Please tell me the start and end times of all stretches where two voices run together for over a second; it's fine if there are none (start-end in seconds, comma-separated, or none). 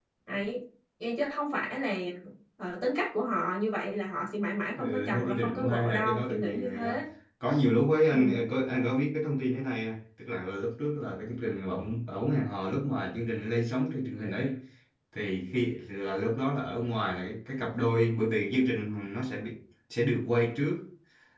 4.8-7.0